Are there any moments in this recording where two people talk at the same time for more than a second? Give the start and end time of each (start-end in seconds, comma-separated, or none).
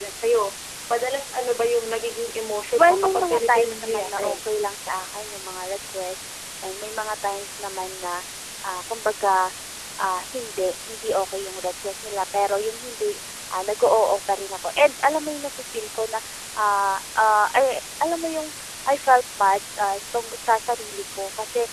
2.7-4.3